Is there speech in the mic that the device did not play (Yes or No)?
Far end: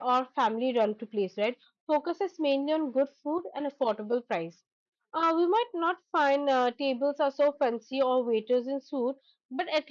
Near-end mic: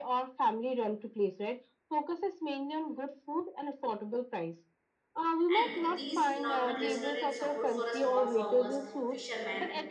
Yes